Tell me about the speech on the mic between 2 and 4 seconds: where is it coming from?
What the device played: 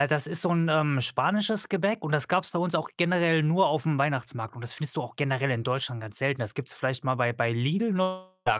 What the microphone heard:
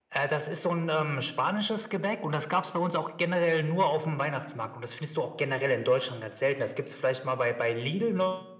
echo only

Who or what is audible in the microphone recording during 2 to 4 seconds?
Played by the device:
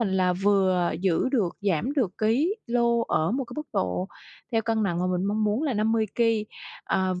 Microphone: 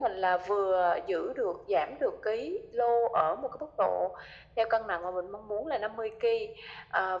echo only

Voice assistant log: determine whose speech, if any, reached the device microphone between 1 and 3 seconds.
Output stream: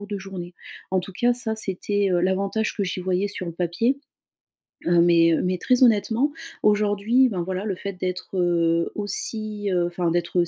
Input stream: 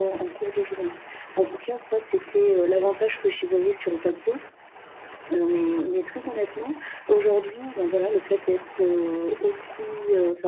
echo only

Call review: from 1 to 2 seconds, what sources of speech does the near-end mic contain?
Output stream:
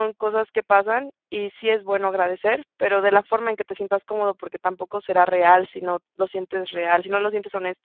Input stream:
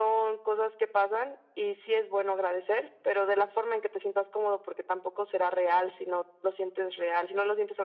echo only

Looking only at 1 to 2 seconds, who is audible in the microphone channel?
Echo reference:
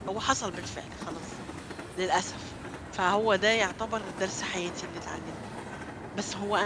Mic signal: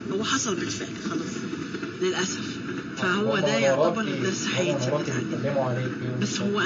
echo only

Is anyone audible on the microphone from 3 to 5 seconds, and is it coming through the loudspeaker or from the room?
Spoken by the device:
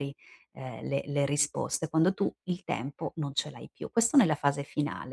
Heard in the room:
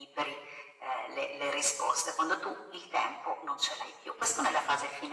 echo only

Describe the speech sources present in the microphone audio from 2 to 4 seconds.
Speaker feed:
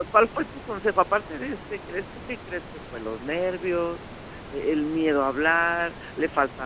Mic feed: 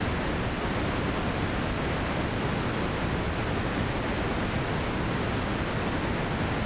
neither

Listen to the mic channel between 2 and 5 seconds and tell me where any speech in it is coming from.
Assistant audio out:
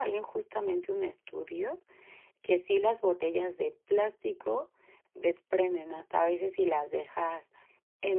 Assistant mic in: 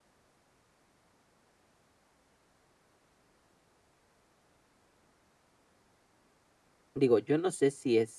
neither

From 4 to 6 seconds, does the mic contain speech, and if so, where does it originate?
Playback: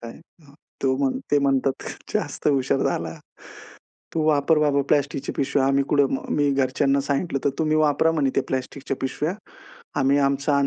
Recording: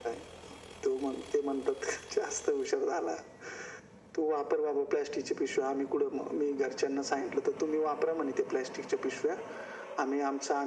echo only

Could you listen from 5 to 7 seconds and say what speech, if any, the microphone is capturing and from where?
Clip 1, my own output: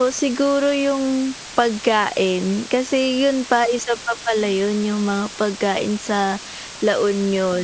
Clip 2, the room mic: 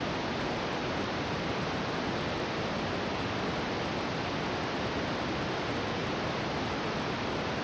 neither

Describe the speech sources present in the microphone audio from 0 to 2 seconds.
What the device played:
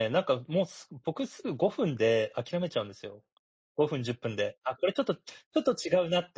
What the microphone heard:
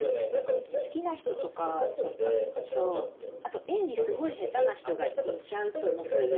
both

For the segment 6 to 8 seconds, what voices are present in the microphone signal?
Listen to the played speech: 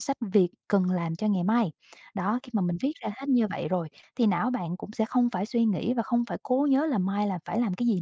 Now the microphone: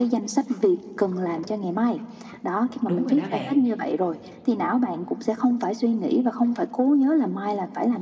echo only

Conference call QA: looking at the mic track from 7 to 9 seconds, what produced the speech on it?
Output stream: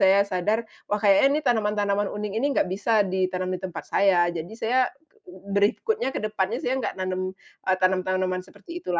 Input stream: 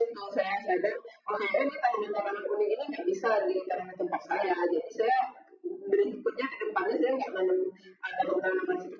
echo only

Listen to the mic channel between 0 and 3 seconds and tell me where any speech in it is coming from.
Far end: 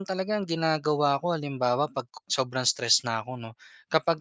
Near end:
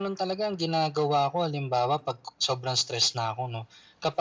echo only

